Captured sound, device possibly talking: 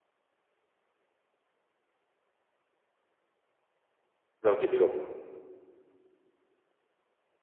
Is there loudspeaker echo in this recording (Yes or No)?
No